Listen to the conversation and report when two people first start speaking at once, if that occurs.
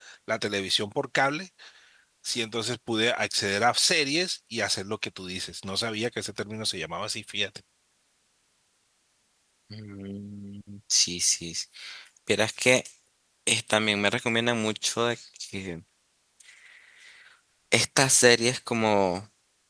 none

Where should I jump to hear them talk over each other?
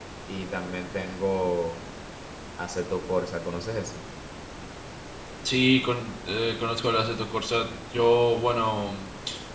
none

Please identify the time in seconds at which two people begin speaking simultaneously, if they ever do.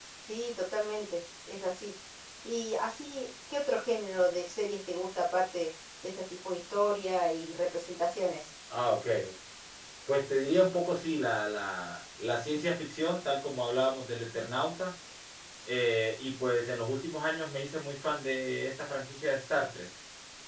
none

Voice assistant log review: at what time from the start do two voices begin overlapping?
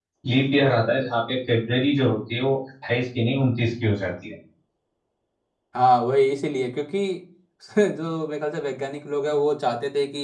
none

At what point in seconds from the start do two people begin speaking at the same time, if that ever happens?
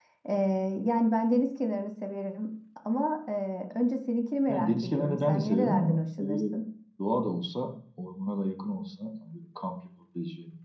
4 s

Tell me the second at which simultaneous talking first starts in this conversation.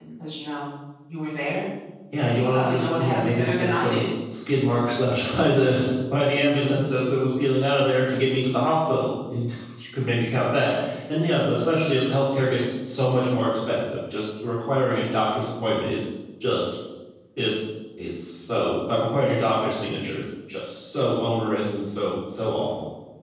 2 s

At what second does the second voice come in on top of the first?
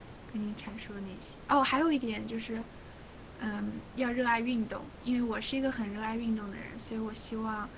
none

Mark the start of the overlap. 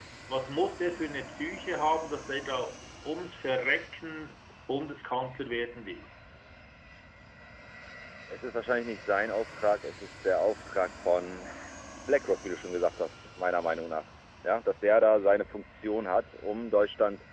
none

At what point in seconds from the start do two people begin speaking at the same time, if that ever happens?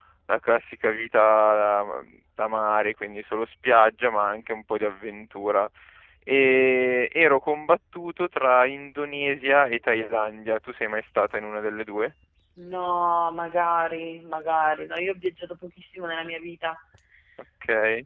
none

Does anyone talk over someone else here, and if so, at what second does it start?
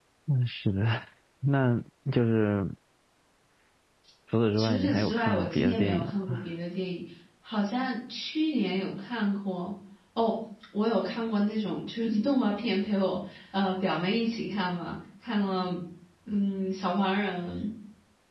5 s

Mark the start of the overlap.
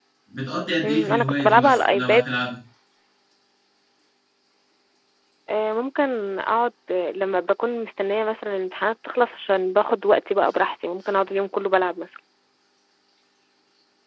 1 s

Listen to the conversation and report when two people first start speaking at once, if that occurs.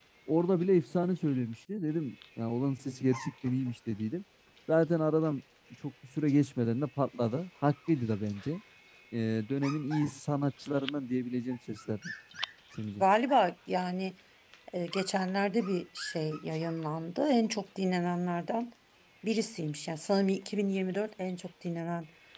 none

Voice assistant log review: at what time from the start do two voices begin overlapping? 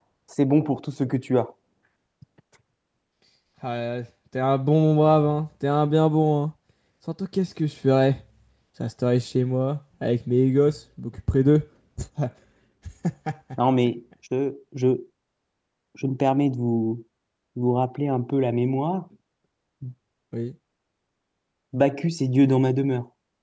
none

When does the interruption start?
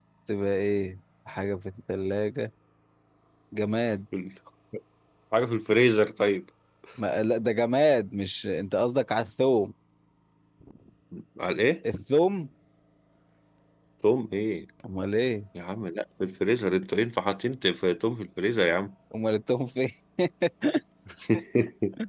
none

